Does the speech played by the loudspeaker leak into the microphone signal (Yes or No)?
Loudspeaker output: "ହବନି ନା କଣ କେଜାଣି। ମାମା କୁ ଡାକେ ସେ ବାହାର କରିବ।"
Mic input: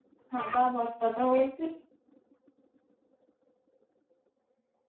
No